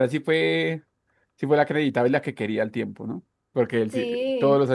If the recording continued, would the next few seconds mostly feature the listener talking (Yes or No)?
No